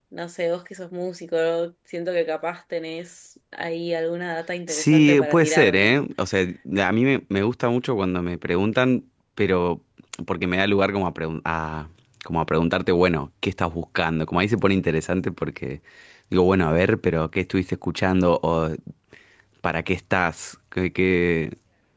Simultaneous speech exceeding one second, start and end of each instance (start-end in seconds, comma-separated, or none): 4.7-5.9